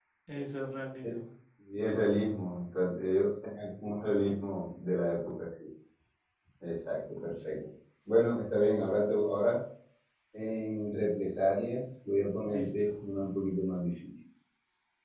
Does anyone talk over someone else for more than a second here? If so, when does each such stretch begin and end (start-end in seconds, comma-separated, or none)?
none